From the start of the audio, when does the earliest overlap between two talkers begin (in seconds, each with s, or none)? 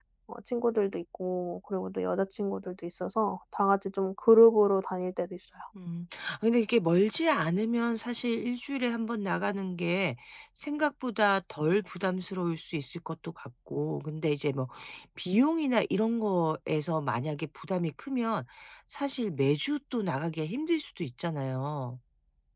none